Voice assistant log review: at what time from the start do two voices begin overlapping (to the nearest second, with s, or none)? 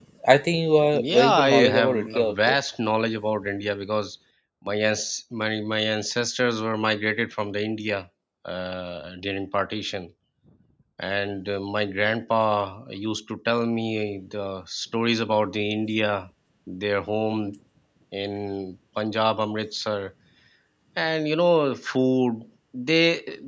1 s